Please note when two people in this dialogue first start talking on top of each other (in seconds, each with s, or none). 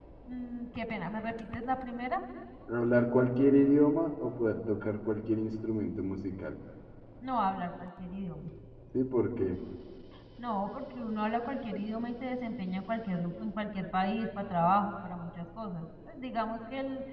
none